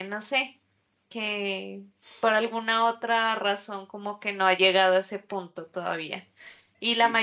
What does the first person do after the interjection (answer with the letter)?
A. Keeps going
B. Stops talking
A